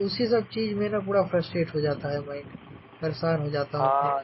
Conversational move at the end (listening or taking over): taking over